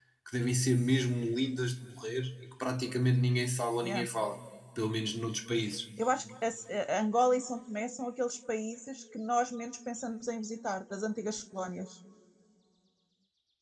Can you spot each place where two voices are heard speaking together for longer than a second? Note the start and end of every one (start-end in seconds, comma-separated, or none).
none